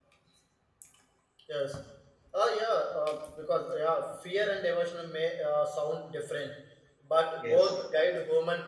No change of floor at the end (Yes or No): Yes